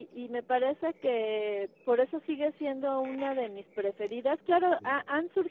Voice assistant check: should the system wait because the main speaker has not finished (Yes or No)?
Yes